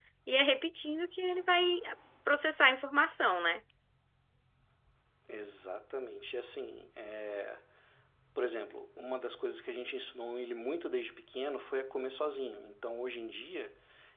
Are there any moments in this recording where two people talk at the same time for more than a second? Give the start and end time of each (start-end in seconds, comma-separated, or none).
none